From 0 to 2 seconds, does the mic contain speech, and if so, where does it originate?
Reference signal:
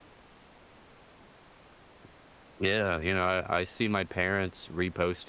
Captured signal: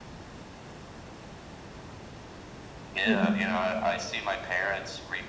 neither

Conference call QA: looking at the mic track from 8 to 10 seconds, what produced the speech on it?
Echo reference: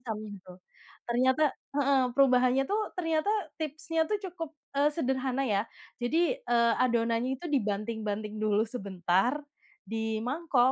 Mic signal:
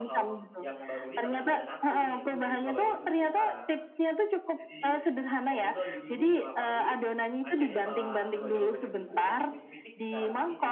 both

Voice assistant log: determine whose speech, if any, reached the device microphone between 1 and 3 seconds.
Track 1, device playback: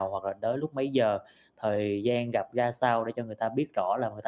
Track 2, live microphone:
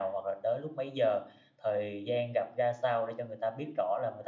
echo only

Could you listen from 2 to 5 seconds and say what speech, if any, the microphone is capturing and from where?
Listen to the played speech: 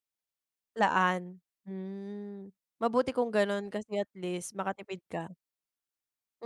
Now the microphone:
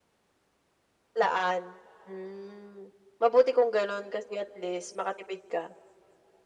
echo only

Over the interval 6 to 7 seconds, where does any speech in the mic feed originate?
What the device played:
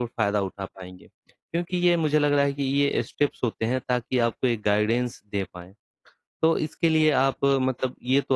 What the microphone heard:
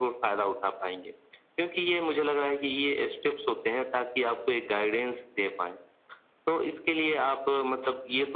echo only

